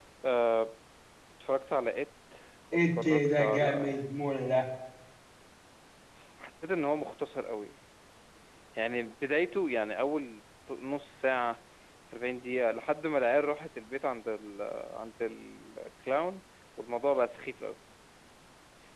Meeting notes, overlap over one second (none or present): present